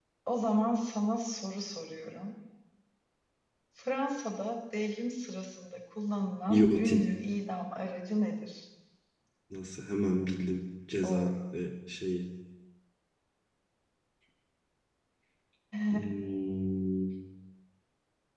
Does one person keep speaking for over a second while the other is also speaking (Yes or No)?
No